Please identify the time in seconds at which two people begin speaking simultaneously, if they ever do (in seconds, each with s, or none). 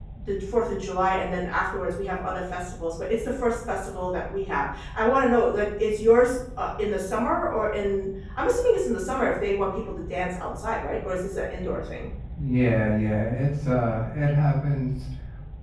none